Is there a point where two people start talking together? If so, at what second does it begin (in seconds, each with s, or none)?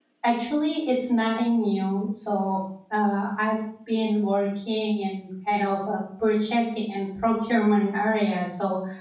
none